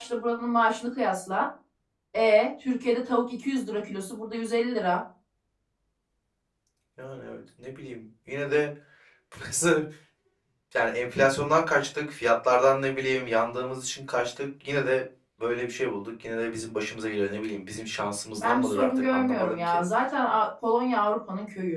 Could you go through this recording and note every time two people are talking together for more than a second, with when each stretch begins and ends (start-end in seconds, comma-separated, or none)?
18.4-19.8